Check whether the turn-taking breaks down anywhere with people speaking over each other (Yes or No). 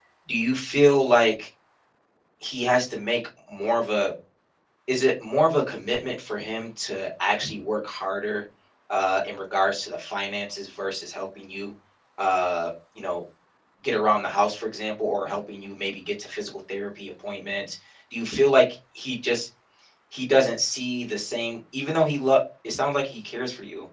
No